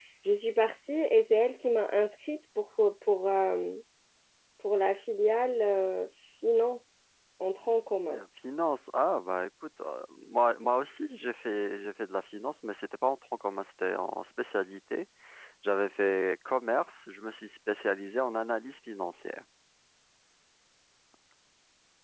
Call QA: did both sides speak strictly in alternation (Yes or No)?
Yes